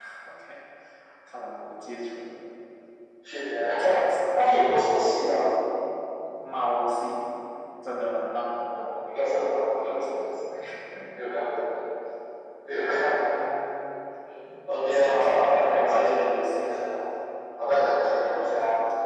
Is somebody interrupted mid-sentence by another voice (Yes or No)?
Yes